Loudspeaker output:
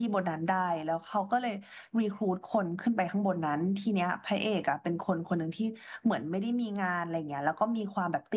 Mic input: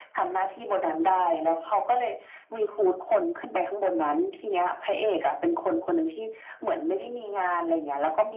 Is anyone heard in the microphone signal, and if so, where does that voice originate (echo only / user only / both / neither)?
echo only